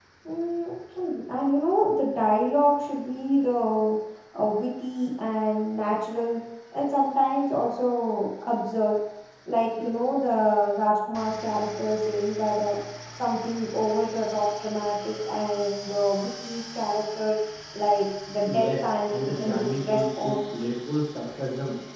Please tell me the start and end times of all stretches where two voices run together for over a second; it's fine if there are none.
18.5-20.7

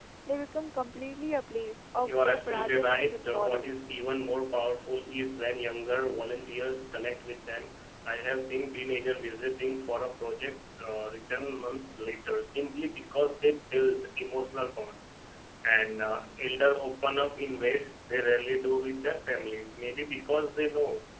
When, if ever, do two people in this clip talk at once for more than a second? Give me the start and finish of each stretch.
2.0-3.7

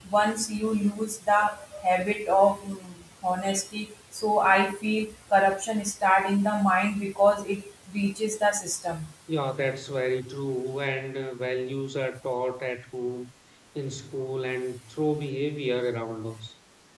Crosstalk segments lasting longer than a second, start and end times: none

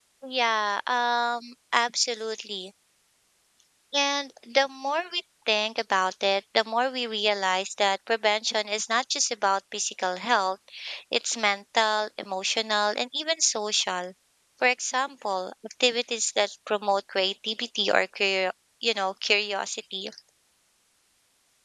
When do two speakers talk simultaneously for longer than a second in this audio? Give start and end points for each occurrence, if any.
none

